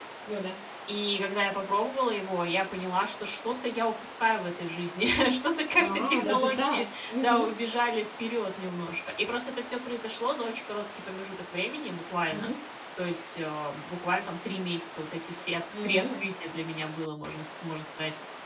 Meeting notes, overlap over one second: present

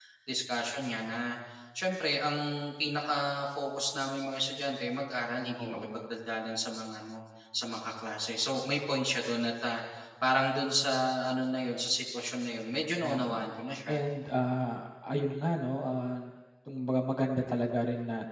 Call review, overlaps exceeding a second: none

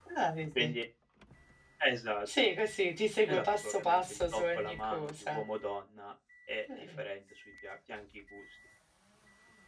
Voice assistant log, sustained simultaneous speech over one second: present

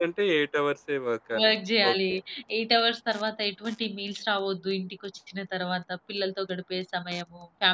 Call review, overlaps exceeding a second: none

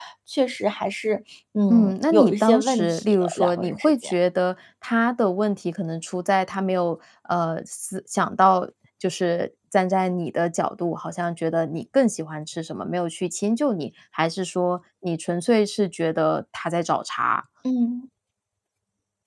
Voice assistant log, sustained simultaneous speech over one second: present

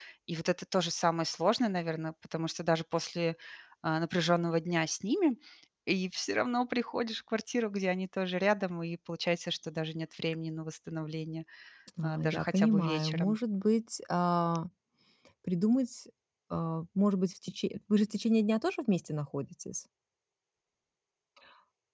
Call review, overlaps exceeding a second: present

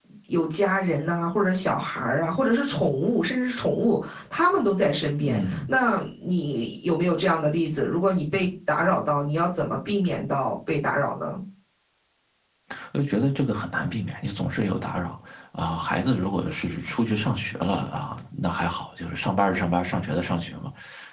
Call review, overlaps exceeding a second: none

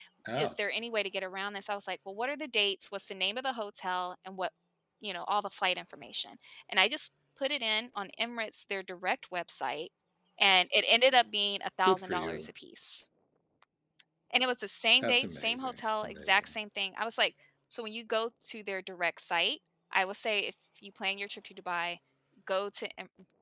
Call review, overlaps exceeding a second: present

